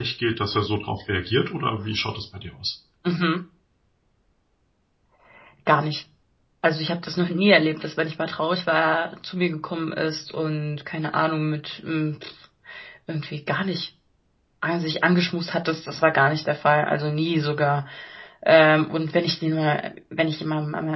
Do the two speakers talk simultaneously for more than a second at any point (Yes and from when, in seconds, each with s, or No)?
No